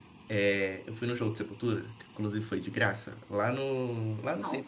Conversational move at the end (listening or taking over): listening